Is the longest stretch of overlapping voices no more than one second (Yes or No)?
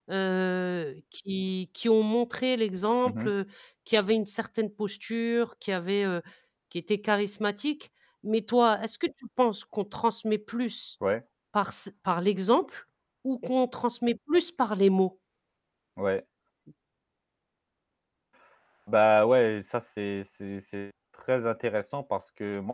Yes